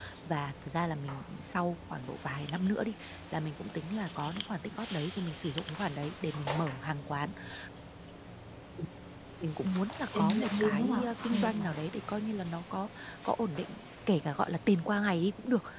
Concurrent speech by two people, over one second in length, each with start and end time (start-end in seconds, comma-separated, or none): 10.2-11.7